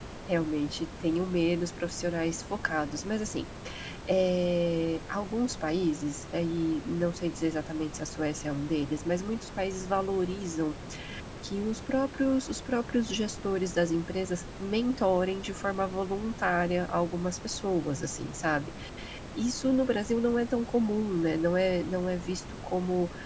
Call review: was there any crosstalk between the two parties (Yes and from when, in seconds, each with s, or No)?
No